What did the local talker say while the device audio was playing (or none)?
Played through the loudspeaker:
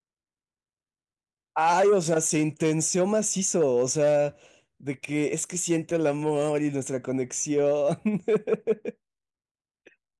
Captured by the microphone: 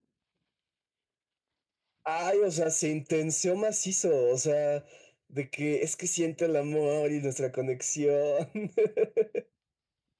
none